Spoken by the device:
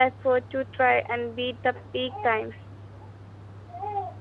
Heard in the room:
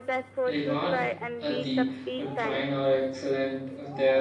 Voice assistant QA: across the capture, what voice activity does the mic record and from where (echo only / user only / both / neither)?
both